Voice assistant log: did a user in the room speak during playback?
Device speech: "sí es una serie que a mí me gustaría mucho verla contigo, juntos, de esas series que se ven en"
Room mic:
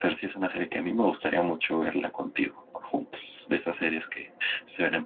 No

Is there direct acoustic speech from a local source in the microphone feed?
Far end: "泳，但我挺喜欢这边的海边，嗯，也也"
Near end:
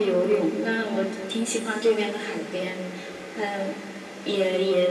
No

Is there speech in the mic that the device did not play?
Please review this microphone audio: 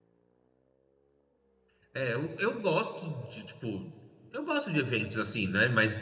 Yes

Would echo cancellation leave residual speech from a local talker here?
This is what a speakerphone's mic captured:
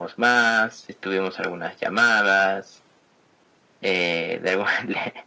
No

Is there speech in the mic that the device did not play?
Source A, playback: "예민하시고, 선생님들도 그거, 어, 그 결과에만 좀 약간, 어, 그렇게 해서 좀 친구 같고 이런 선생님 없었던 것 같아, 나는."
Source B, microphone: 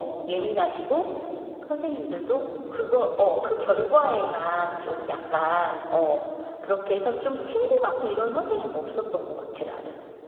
No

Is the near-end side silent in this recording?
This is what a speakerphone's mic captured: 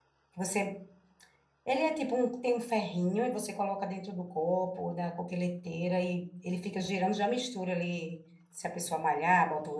No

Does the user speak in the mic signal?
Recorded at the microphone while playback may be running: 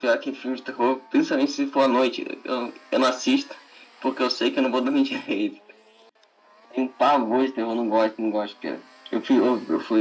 No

